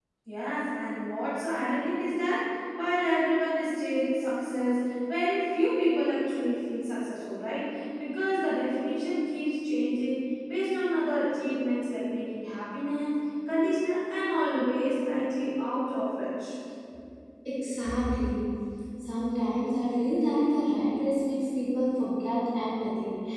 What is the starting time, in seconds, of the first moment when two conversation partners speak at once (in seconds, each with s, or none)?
none